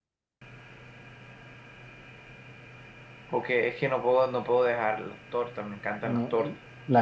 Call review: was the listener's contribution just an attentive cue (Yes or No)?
No